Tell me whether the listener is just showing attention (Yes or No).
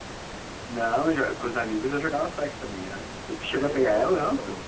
No